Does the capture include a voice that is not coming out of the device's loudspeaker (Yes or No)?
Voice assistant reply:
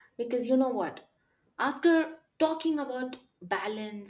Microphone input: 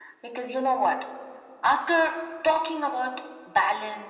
No